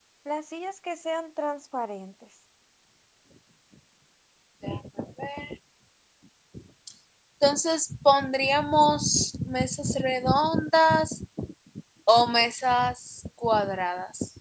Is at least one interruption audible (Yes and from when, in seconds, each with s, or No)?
No